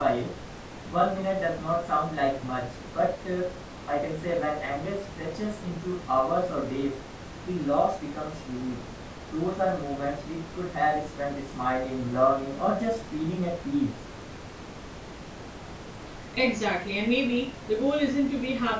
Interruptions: none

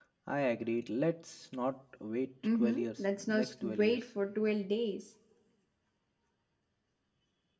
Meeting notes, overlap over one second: present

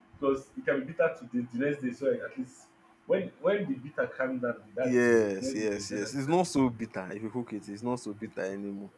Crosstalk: present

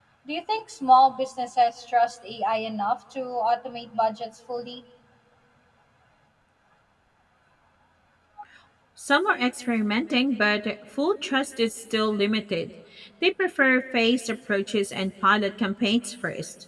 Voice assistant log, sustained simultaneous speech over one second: none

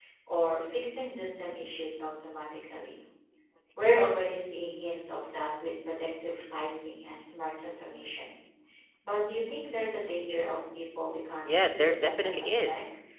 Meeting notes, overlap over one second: present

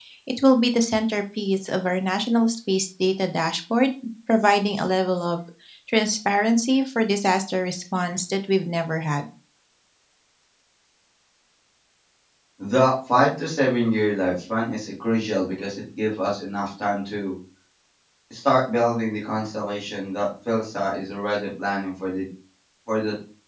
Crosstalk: none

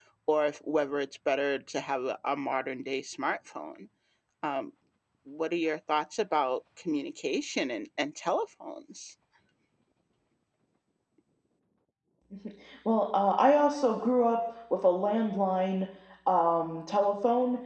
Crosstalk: none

